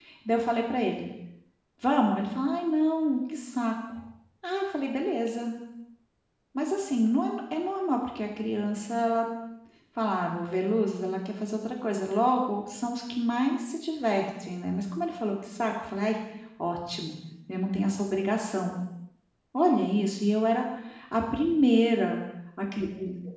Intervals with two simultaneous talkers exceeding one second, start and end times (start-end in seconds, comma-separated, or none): none